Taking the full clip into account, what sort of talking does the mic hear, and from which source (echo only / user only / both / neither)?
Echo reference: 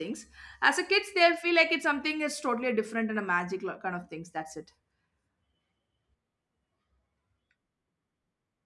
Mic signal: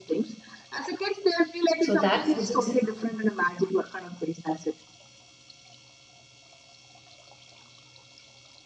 both